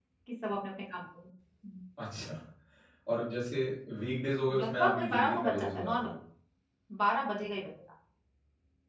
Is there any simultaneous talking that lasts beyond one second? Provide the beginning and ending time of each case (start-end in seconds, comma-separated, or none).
4.6-6.1